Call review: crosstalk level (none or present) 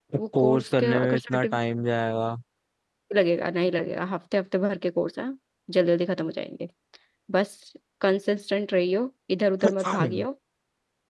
present